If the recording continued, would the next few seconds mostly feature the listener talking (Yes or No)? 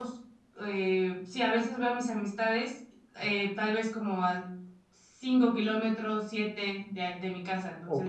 Yes